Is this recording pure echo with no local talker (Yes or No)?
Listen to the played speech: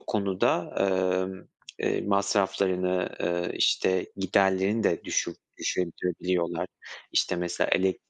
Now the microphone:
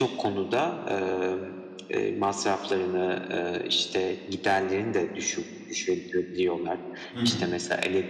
No